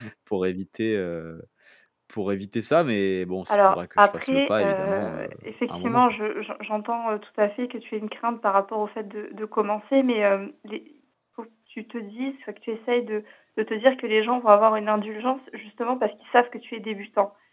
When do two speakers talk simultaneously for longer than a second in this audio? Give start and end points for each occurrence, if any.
3.5-5.3

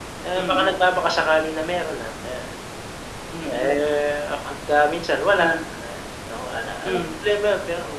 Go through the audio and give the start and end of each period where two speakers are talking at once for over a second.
none

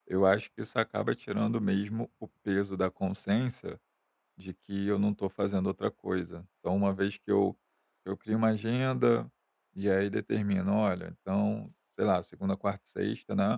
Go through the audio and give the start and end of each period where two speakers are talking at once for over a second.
none

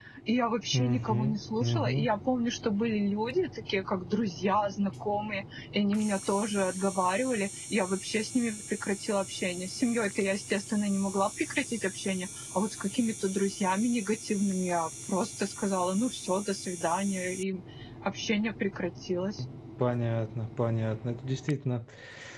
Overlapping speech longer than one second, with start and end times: 0.7-2.1

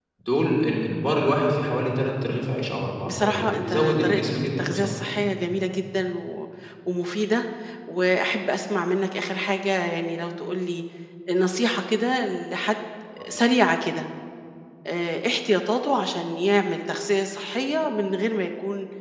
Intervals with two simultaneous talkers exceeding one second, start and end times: 3.1-5.0

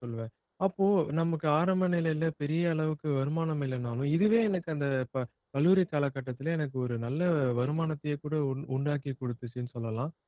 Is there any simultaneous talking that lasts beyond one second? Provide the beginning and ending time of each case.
none

